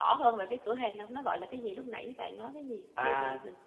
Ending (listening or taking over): taking over